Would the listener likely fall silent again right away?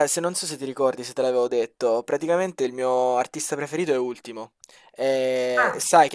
Yes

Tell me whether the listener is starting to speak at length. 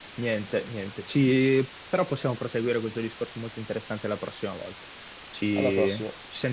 No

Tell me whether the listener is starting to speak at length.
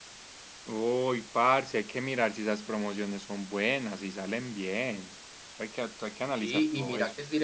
Yes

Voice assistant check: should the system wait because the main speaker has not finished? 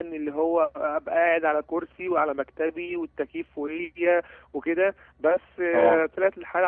Yes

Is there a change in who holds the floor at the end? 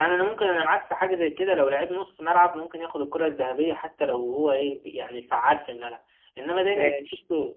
No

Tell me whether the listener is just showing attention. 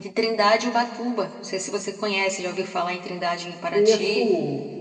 No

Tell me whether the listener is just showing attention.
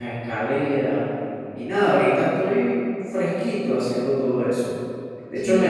Yes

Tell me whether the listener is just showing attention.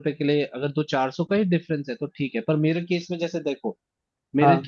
Yes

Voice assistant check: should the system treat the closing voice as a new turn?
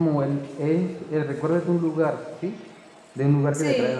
No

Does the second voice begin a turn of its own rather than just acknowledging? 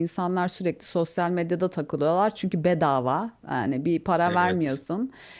No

